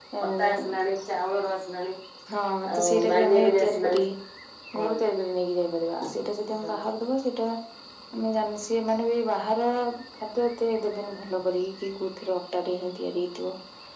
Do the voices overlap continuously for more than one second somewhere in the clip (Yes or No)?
Yes